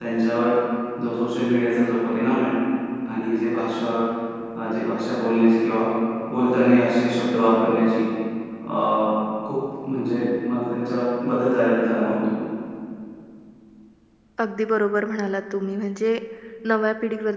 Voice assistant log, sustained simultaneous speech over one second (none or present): none